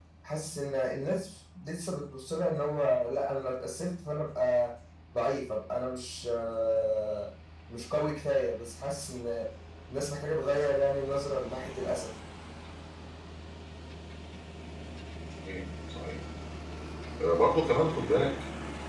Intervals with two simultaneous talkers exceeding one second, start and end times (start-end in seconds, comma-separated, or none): none